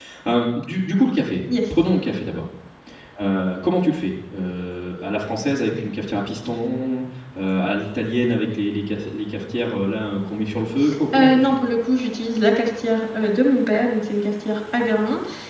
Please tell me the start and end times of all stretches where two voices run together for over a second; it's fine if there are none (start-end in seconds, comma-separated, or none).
none